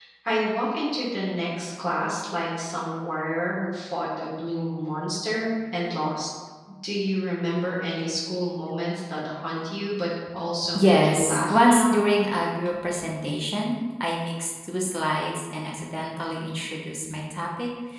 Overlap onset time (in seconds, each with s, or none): 10.8 s